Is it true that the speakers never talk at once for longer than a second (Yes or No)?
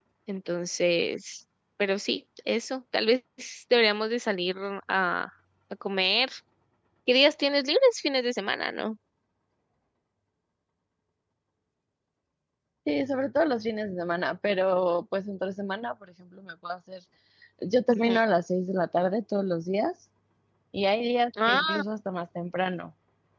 Yes